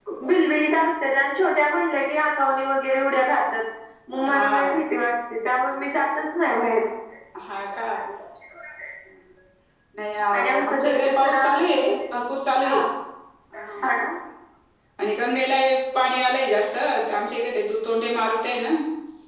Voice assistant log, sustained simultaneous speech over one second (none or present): present